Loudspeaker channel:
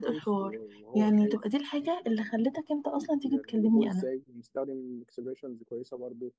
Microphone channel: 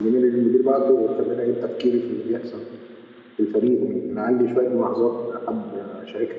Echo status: none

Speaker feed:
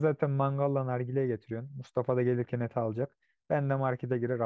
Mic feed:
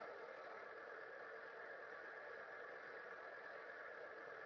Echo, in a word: none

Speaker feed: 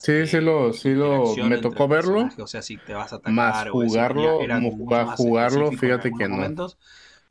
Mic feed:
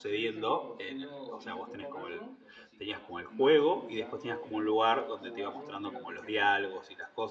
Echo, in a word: present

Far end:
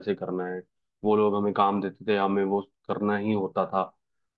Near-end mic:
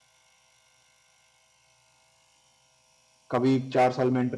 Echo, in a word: none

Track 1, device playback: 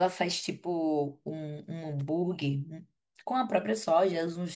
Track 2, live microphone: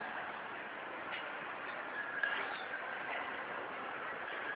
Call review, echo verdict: none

